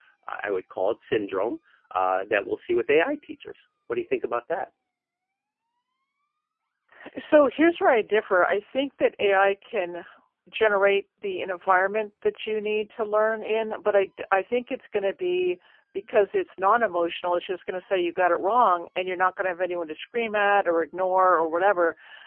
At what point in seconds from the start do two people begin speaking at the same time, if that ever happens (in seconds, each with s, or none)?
none